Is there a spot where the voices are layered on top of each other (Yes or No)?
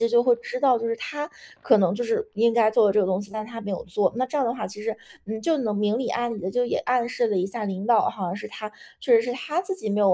No